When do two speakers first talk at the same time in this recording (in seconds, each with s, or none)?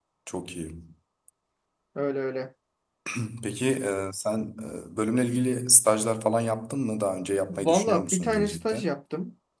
7.5 s